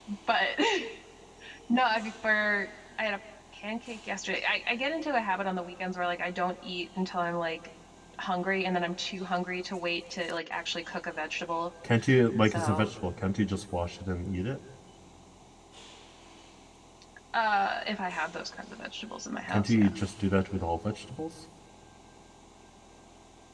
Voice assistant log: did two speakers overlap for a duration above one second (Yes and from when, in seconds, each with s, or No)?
No